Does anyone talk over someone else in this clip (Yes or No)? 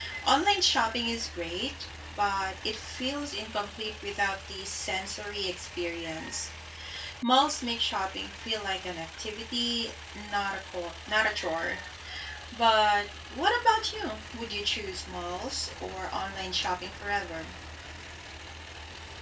No